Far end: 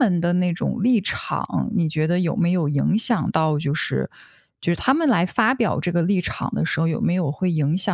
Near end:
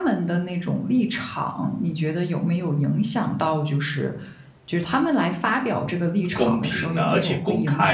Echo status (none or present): present